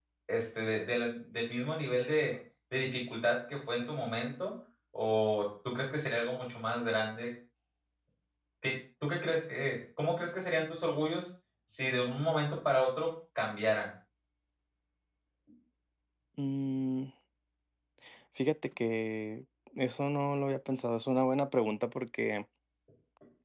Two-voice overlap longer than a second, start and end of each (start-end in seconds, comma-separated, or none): none